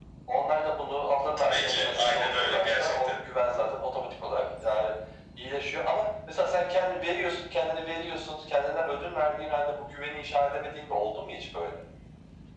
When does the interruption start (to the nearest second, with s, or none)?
1 s